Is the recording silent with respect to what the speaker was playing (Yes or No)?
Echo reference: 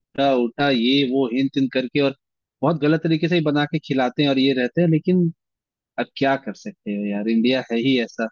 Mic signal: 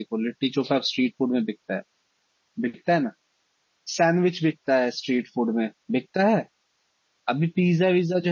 Yes